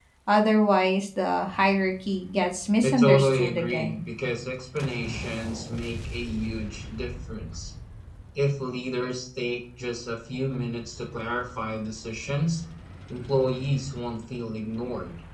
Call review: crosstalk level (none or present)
present